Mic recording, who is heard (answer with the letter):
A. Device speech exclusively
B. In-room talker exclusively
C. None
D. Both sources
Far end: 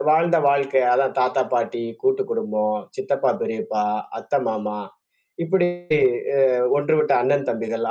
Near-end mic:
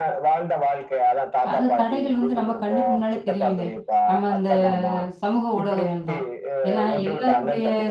D